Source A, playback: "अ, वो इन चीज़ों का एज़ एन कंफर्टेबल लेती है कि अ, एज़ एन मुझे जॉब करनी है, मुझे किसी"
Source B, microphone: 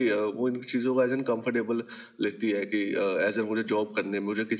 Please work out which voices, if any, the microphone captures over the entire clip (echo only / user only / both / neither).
echo only